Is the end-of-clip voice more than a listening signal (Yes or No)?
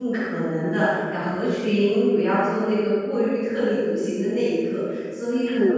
Yes